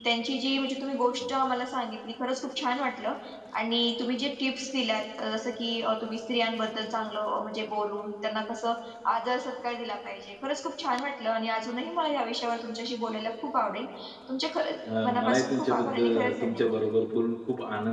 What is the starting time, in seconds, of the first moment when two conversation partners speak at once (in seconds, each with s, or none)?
15.0 s